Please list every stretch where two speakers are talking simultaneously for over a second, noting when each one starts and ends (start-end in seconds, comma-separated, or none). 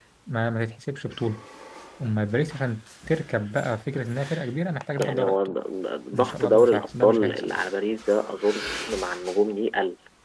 6.1-7.6